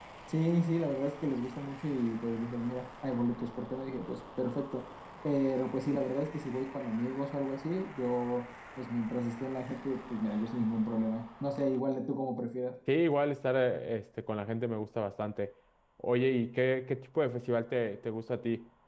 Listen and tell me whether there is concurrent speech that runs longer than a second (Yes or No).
No